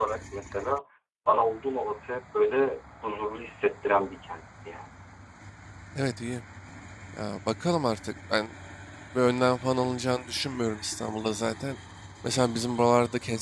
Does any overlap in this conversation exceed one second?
No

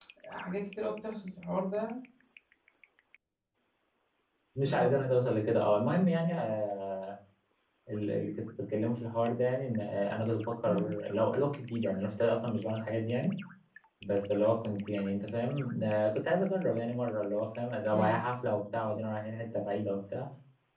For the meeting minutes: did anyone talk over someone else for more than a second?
No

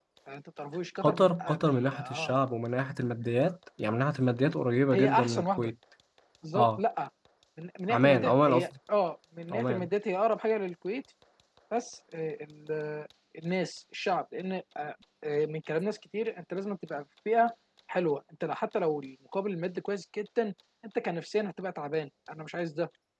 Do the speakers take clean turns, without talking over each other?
No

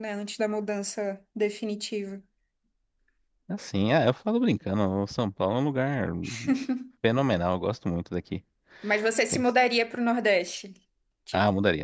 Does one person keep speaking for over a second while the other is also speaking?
No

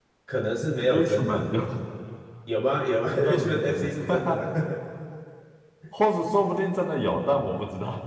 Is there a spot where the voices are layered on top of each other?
Yes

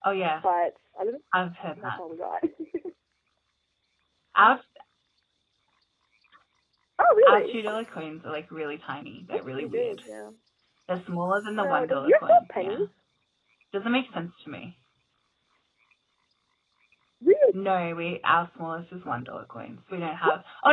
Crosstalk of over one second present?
Yes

